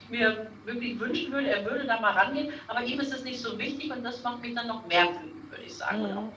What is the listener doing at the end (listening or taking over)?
taking over